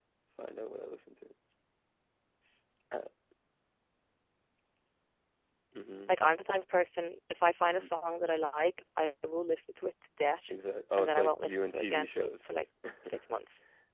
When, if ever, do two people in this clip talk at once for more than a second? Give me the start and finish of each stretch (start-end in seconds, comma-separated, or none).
11.0-12.5